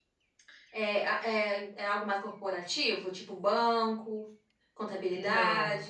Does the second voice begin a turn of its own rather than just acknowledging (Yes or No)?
Yes